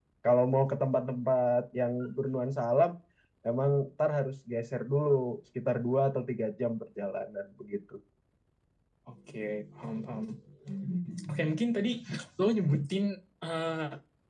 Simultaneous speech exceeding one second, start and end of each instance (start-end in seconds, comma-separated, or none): none